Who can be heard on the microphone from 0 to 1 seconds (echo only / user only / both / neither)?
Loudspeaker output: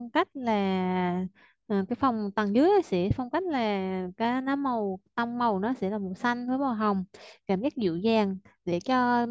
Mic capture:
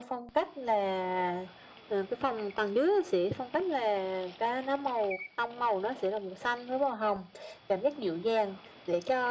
echo only